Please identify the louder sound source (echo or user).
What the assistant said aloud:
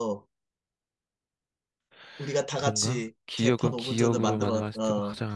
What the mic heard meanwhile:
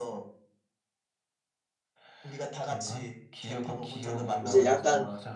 user